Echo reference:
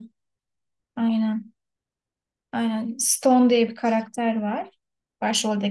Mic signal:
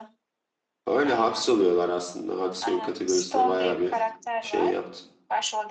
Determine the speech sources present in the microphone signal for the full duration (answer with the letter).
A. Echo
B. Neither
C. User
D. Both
D